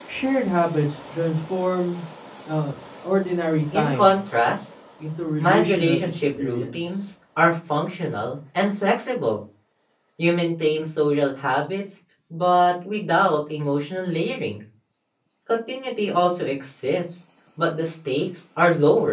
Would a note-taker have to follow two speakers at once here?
Yes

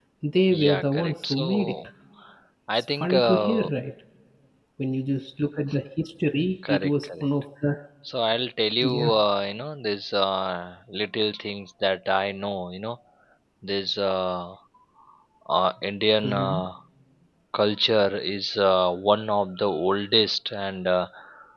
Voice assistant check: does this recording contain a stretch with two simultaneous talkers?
Yes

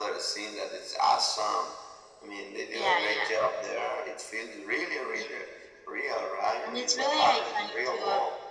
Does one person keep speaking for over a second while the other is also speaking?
Yes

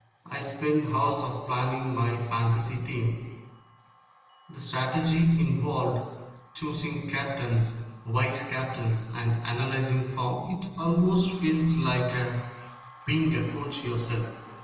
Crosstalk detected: No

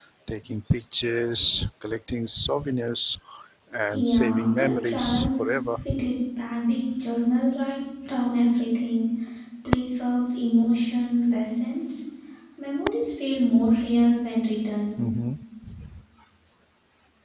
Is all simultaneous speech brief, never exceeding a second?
No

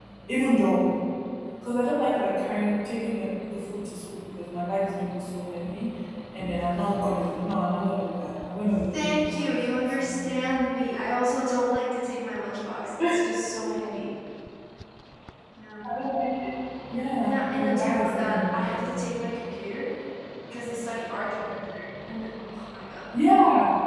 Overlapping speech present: Yes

